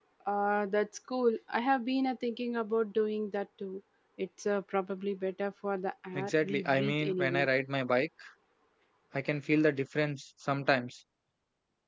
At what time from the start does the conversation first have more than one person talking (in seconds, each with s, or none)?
6.1 s